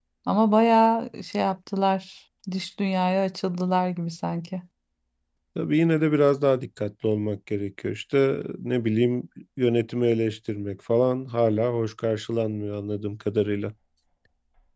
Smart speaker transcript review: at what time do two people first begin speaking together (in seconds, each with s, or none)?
none